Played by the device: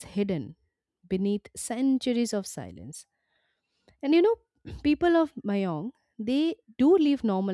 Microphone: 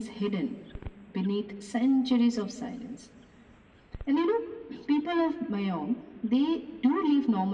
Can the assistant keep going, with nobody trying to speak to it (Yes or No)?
Yes